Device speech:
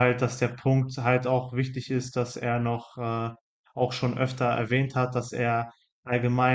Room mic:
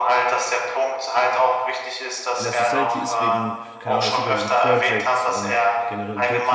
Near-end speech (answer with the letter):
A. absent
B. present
B